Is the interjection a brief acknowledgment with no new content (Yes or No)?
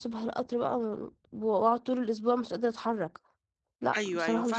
No